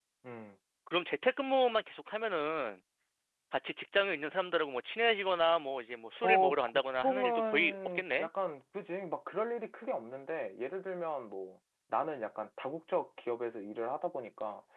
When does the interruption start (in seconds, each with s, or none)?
6.2 s